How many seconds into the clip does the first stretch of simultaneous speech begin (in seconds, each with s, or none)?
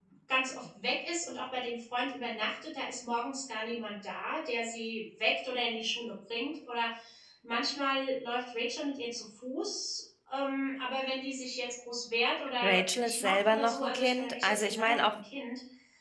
12.6 s